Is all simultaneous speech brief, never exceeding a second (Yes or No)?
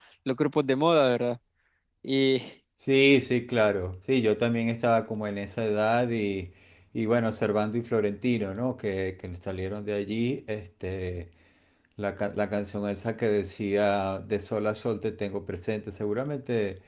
Yes